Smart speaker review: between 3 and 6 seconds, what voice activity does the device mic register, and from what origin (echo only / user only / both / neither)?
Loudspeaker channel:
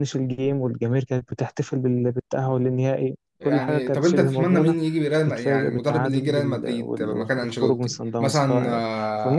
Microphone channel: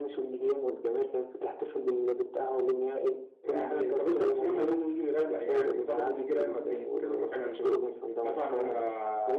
echo only